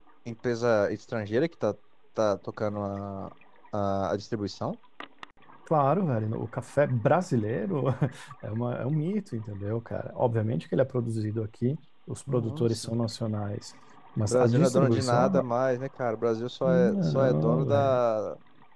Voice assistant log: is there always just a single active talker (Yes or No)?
No